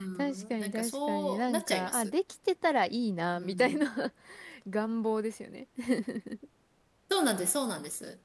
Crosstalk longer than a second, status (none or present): present